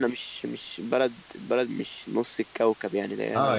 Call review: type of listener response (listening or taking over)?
taking over